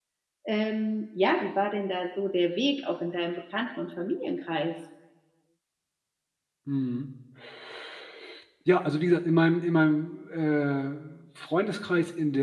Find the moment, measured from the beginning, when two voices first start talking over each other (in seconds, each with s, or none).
none